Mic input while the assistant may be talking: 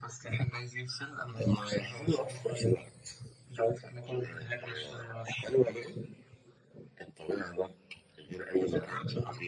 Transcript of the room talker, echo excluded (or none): none